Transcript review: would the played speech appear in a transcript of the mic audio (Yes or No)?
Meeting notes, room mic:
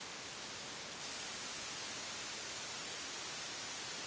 No